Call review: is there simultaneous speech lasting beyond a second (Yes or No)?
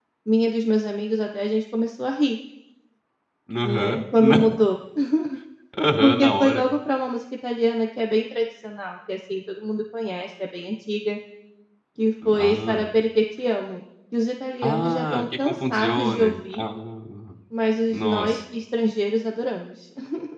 Yes